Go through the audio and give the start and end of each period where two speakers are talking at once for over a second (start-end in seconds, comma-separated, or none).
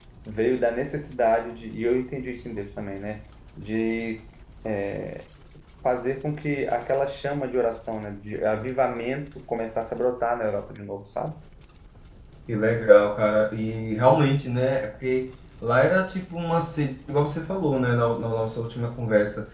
none